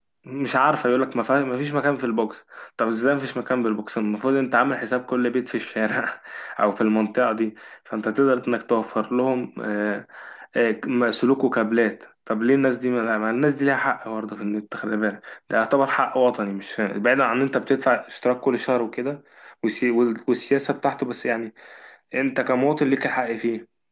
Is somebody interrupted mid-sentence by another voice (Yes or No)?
No